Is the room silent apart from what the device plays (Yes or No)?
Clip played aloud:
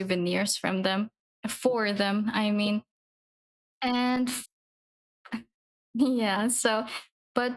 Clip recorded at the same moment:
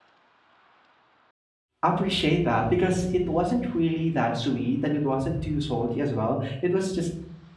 No